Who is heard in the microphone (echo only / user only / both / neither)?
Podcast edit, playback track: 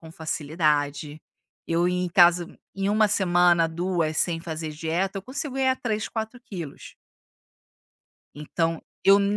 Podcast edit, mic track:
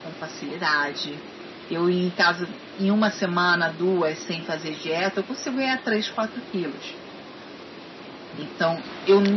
echo only